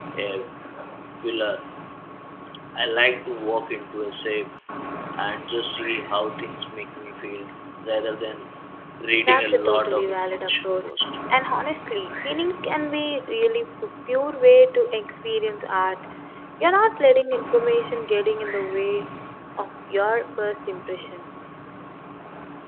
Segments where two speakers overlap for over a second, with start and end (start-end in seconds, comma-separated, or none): 9.2-10.9